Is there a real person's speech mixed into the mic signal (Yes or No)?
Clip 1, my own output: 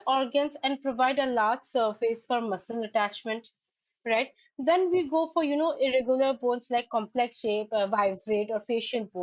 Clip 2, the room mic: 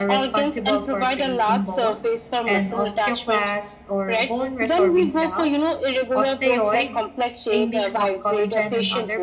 Yes